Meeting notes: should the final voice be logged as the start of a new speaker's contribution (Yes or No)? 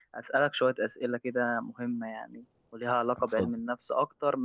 No